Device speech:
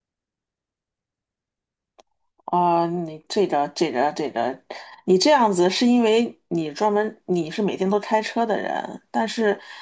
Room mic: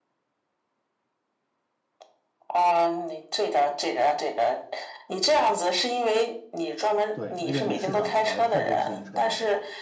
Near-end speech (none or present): present